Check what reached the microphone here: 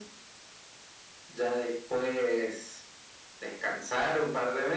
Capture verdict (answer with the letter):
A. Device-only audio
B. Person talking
A